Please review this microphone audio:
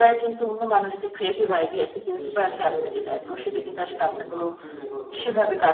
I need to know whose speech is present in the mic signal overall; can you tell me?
both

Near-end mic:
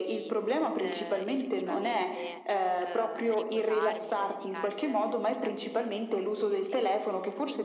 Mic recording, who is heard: both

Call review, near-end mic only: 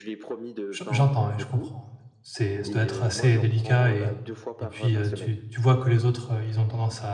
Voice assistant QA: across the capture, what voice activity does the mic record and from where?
both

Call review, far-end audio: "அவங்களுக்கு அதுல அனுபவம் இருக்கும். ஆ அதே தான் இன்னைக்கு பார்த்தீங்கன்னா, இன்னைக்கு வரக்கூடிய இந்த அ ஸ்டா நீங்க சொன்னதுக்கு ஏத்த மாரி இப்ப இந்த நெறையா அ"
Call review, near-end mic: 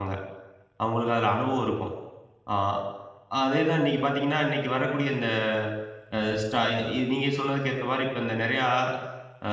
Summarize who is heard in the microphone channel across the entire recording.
echo only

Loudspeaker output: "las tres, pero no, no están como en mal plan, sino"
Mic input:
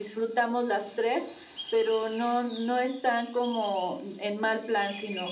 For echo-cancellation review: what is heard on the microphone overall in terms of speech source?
echo only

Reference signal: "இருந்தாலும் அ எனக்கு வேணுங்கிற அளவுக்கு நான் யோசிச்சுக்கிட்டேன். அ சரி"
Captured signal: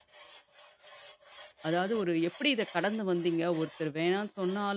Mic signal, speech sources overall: user only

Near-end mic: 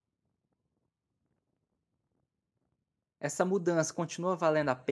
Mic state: user only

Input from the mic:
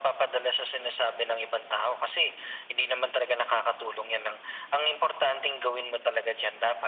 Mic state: echo only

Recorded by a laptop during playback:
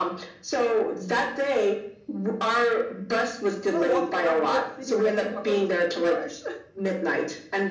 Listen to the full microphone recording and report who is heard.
both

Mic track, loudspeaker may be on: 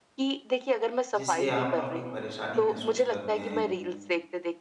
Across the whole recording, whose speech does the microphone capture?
both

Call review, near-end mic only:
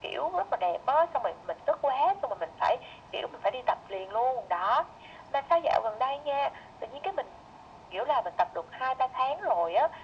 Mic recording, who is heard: echo only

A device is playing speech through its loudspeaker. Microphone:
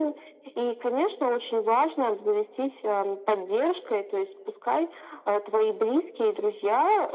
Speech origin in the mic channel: echo only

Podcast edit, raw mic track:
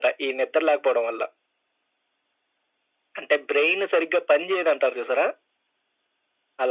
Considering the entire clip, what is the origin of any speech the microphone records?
echo only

